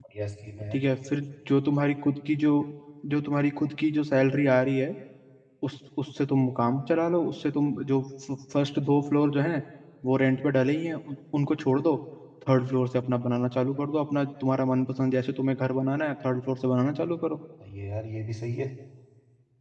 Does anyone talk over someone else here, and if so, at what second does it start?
none

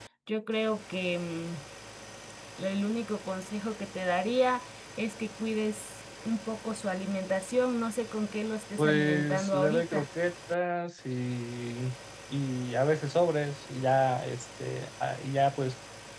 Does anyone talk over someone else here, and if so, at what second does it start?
9 s

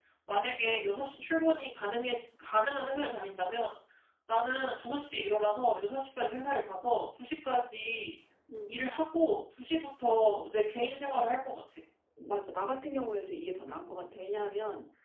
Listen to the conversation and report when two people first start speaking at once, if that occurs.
none

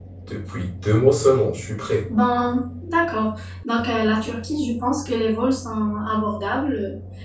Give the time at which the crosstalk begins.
none

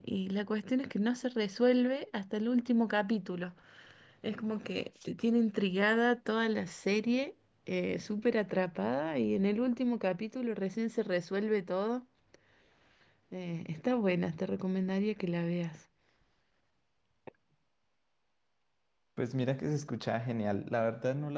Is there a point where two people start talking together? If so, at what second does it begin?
none

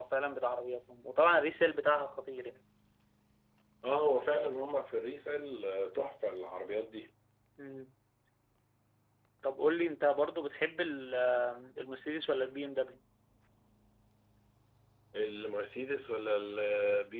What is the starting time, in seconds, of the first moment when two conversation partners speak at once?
none

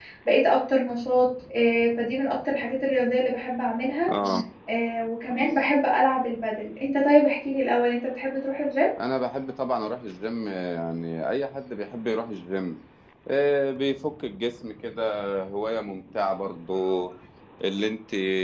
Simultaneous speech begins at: none

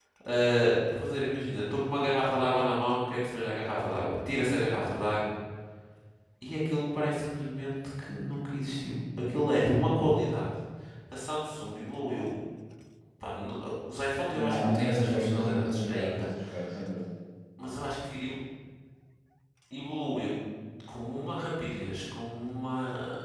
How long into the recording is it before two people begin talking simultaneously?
14 s

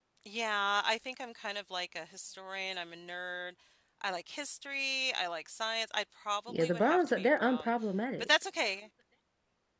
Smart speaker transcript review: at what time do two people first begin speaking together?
6 s

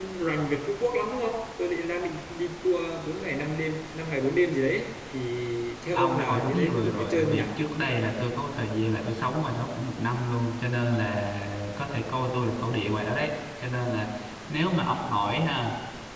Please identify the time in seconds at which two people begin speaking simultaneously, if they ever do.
6 s

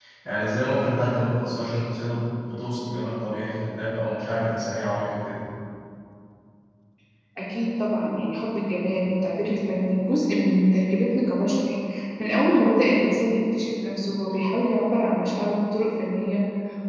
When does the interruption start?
none

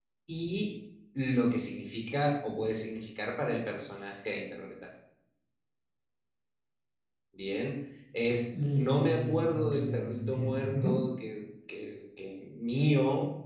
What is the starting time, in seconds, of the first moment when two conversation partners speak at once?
9 s

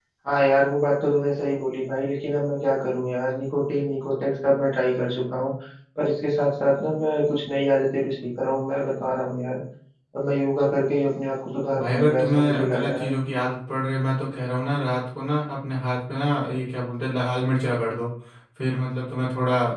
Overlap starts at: 12 s

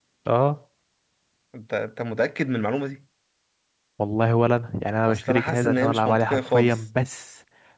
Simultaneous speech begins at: 5 s

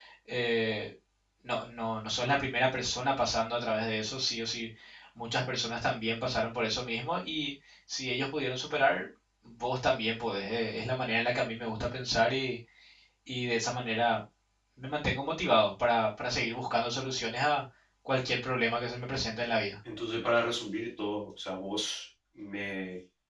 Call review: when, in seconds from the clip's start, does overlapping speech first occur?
none

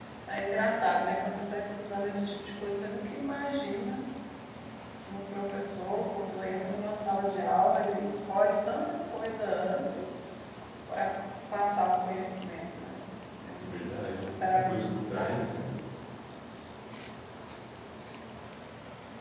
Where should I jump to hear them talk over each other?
14 s

